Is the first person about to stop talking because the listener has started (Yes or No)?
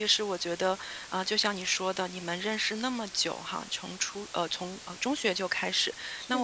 No